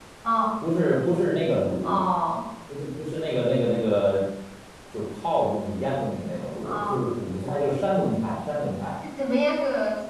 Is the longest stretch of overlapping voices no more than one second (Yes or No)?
Yes